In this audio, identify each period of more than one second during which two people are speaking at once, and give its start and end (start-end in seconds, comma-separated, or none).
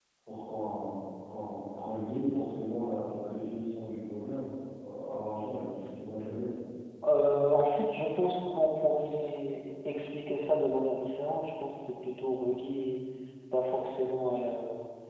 none